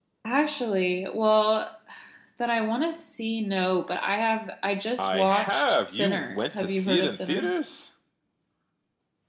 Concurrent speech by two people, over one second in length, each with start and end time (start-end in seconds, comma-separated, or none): 5.0-7.4